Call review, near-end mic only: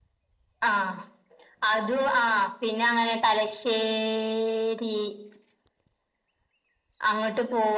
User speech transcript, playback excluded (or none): none